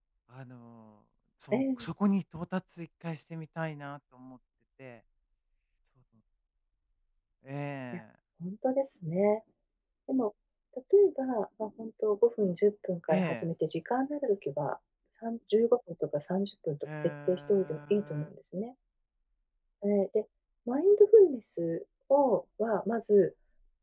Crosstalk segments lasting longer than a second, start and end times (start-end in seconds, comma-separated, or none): 16.8-18.3